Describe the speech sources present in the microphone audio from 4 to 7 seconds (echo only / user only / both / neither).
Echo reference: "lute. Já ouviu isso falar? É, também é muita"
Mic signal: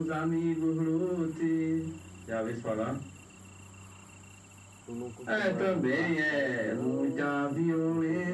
both